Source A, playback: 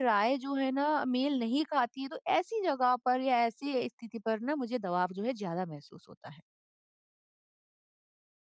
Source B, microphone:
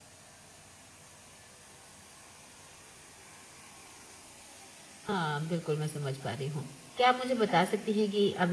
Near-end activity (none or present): present